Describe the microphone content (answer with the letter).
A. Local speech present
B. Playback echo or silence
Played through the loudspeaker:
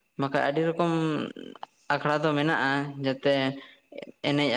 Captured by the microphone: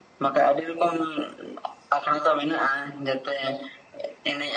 B